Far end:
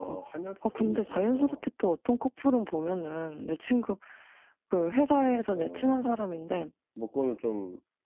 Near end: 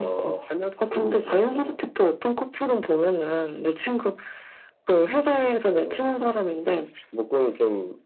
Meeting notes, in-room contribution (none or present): none